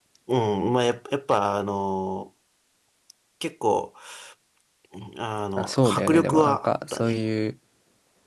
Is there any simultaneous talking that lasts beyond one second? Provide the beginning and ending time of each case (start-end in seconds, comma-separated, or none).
5.6-7.1